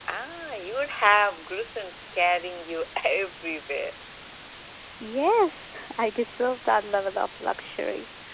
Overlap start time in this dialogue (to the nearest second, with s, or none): none